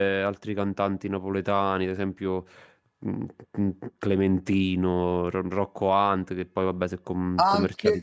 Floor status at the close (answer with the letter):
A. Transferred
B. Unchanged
A